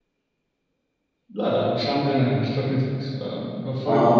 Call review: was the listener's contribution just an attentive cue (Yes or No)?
No